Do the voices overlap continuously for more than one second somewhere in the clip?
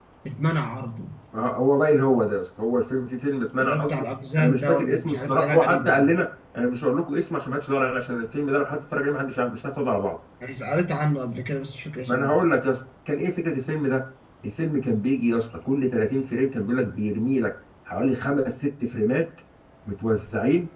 Yes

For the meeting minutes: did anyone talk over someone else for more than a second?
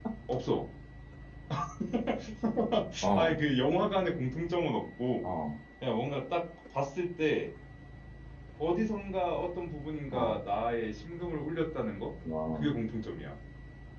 No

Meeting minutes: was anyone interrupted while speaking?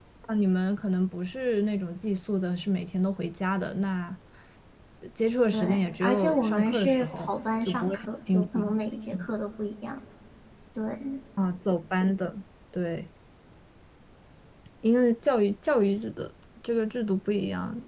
Yes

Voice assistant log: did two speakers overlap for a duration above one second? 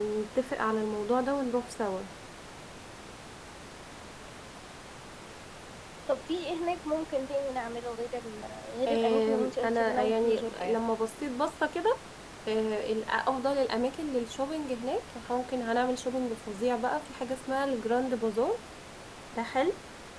Yes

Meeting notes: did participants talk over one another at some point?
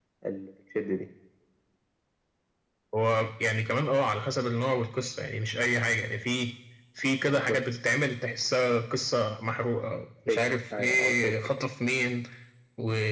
Yes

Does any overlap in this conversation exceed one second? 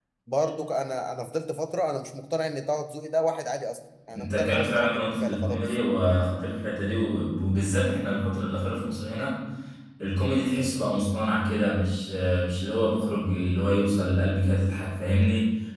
Yes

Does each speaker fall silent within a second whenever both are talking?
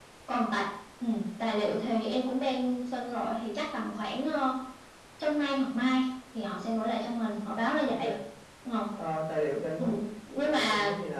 Yes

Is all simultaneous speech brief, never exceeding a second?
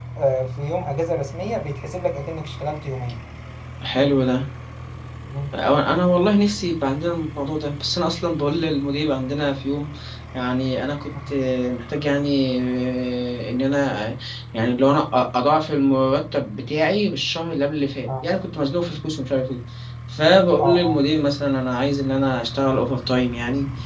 Yes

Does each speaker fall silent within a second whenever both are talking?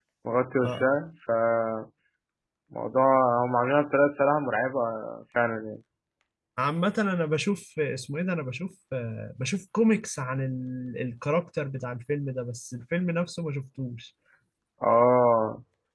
Yes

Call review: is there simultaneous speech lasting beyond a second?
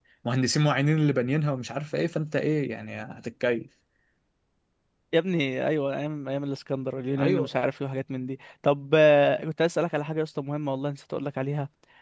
No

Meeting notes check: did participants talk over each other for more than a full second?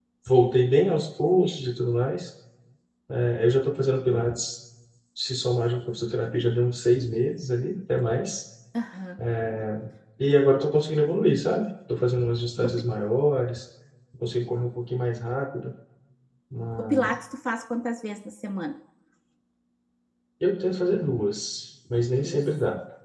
No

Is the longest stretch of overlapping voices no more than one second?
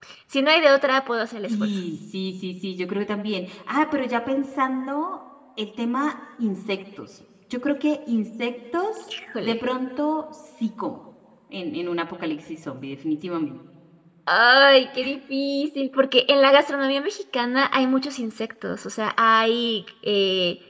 Yes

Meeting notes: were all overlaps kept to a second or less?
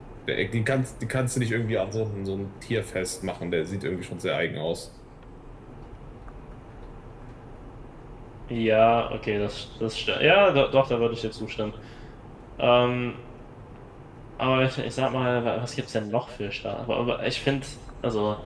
Yes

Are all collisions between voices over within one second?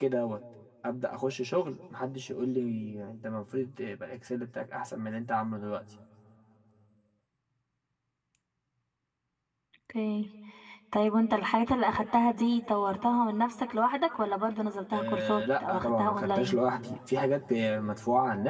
No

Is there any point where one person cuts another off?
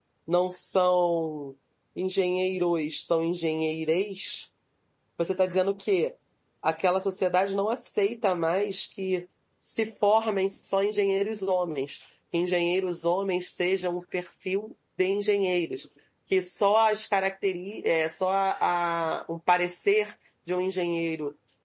No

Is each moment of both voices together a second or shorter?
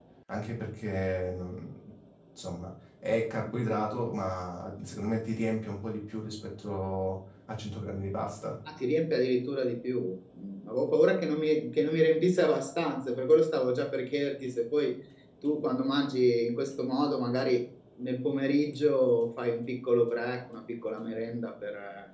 Yes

